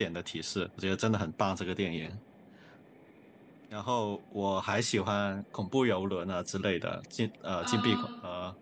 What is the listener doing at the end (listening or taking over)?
listening